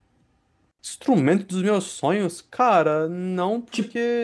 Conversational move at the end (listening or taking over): listening